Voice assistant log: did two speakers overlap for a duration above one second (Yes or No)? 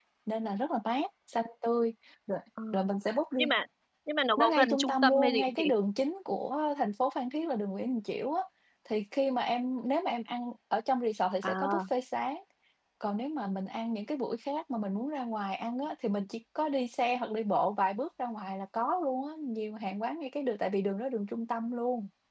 Yes